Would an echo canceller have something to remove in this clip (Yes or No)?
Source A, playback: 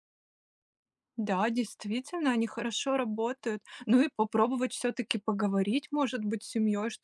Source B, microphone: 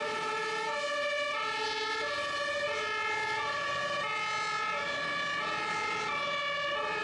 No